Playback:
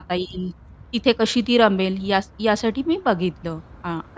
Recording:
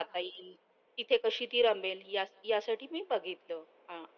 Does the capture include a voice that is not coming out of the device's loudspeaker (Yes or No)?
No